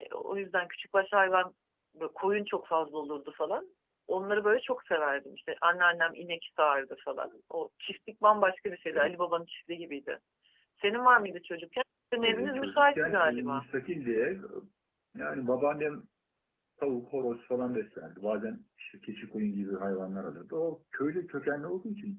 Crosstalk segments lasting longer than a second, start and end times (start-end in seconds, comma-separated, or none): 12.2-13.7